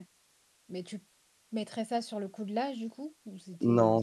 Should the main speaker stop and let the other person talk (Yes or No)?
Yes